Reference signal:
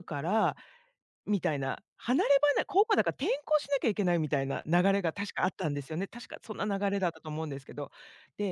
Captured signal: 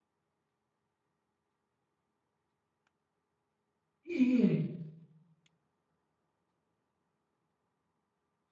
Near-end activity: present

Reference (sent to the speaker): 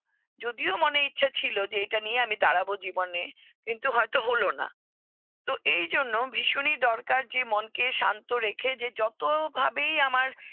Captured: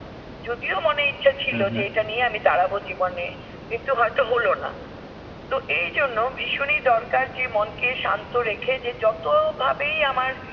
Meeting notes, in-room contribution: present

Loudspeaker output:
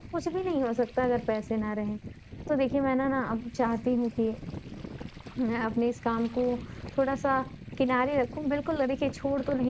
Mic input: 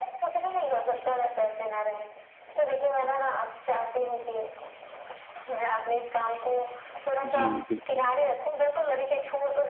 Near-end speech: present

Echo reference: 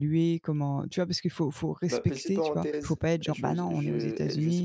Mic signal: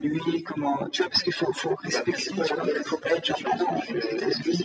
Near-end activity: none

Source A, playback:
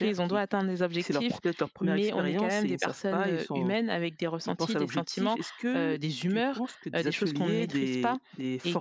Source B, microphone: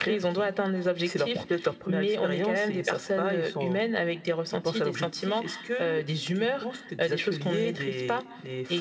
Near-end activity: none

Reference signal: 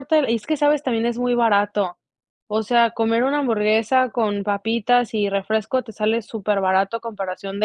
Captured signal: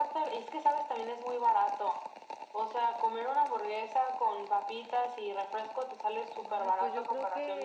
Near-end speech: present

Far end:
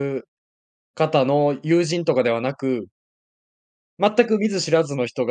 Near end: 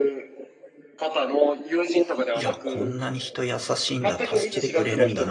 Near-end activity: present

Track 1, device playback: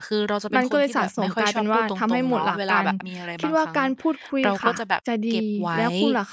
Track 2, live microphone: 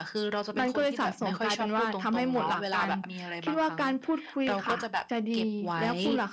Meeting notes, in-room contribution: none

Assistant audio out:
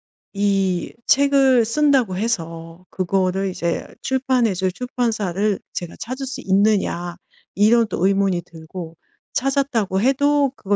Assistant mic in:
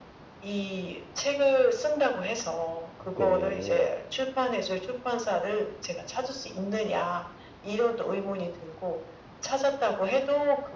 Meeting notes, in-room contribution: present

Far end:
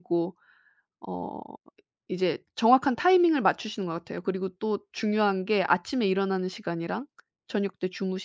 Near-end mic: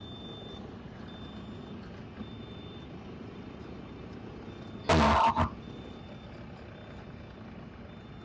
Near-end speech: present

